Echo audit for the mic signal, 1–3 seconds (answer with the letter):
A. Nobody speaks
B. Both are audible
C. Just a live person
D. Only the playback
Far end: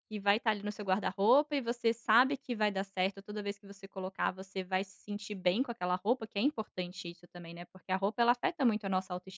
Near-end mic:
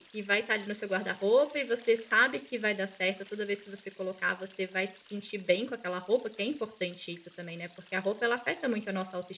D